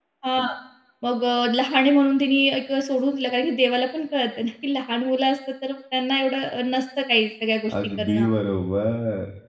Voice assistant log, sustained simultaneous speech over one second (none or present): none